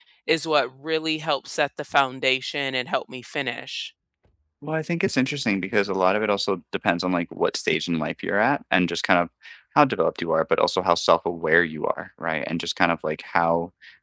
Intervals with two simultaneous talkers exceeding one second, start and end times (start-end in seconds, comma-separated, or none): none